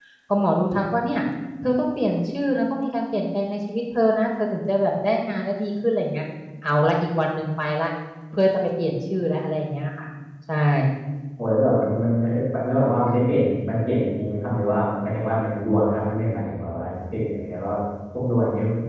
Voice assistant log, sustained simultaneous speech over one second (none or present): none